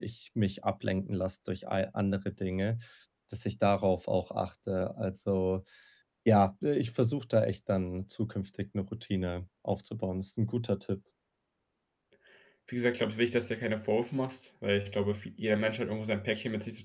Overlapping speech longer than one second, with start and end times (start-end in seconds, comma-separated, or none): none